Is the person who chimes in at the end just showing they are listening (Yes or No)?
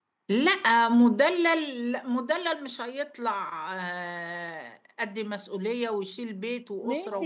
No